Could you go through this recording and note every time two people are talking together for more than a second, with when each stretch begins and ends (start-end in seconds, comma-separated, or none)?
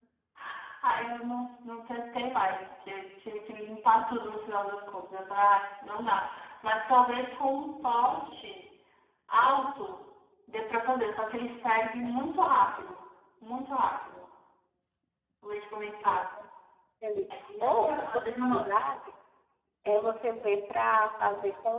17.3-18.8